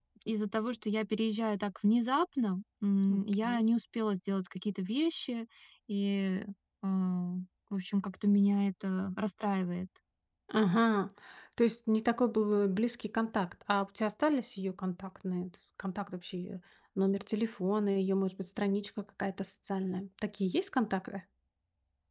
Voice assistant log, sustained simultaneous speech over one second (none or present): none